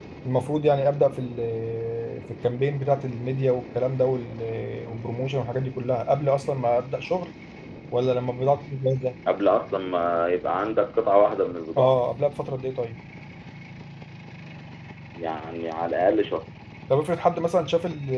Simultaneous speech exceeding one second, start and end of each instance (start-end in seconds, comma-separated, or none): none